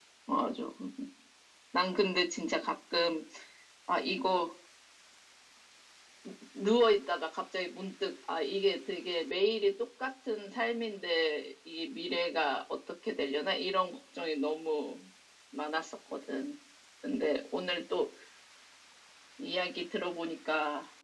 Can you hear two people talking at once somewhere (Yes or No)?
No